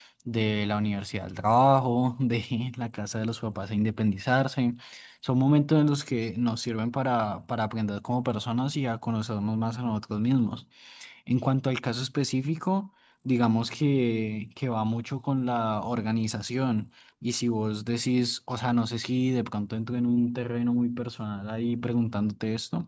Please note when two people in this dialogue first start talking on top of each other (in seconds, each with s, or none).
none